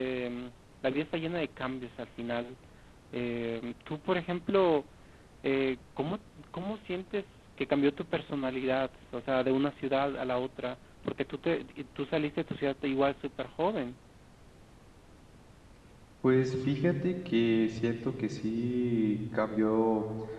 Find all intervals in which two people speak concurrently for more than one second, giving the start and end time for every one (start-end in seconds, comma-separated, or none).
none